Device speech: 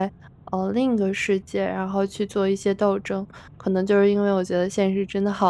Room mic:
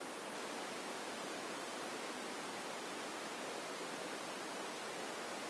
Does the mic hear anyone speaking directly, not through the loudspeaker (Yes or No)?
No